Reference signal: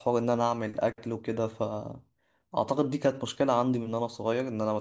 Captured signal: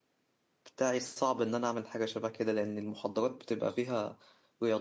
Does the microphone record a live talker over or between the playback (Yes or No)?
Yes